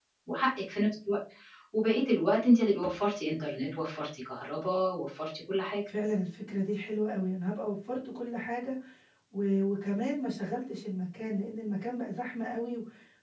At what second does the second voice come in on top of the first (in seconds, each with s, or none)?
none